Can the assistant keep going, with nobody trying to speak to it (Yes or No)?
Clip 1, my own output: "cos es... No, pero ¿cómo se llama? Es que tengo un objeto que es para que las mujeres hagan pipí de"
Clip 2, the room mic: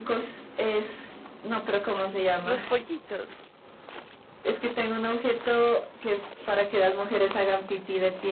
No